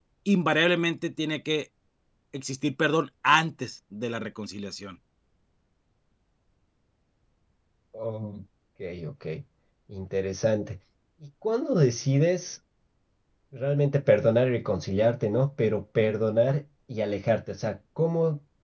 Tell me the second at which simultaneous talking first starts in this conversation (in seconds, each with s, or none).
none